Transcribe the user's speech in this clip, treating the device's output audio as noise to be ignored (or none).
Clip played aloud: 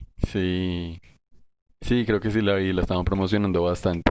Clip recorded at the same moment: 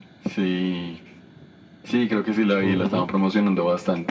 Ujú.